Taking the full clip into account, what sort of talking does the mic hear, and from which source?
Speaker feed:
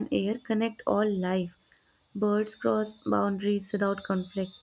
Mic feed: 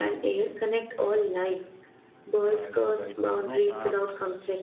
both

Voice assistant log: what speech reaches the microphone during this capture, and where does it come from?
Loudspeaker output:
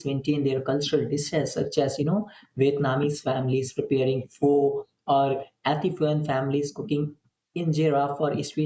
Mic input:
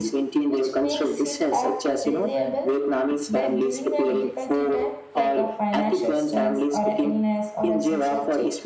both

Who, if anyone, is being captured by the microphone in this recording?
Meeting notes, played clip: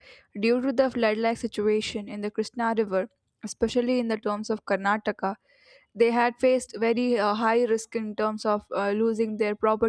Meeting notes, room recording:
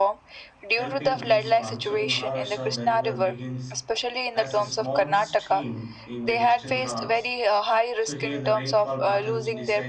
both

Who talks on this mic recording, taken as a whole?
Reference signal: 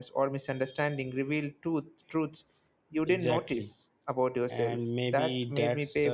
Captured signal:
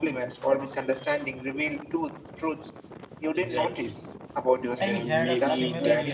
both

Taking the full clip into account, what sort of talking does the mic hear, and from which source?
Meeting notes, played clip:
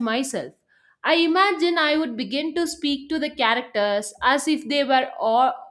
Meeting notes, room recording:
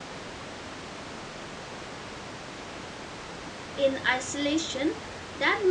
user only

